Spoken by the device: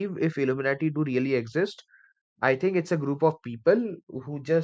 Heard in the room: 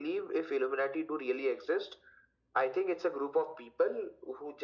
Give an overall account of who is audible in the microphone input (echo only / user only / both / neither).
echo only